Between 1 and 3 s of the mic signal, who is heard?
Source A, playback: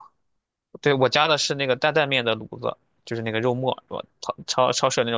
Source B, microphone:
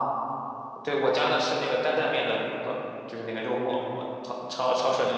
echo only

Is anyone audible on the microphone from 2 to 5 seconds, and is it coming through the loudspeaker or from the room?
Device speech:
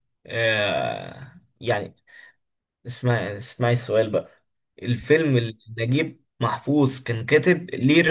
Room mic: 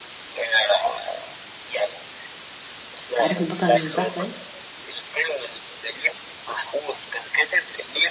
both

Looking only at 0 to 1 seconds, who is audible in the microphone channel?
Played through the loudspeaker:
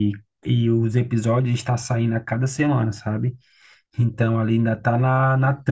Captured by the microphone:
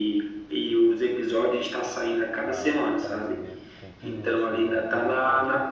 echo only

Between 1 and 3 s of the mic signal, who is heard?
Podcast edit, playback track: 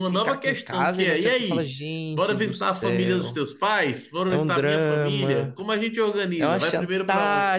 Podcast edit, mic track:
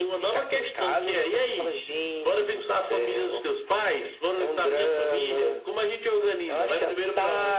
echo only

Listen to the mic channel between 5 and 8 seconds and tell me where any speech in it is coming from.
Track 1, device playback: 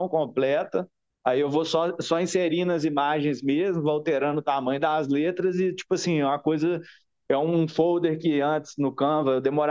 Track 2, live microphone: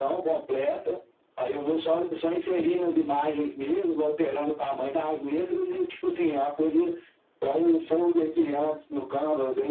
echo only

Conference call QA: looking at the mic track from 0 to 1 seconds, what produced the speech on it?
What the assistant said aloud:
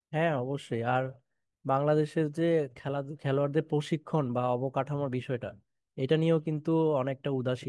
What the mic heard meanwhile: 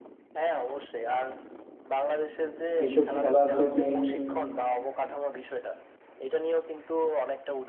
echo only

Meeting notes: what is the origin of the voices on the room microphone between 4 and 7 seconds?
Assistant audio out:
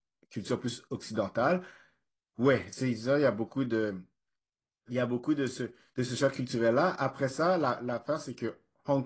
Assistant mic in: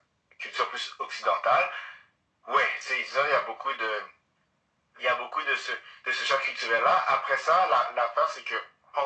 echo only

